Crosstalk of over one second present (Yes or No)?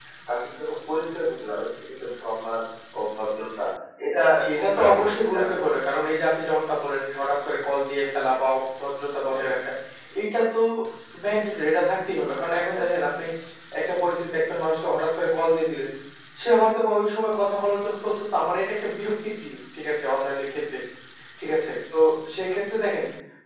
Yes